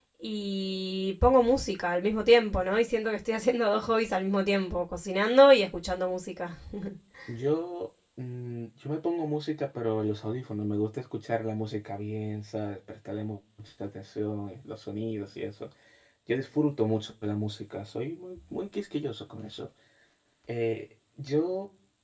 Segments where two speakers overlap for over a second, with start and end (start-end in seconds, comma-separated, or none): none